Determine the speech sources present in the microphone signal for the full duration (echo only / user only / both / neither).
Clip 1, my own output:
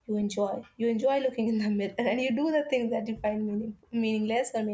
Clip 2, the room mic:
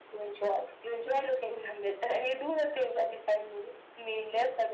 echo only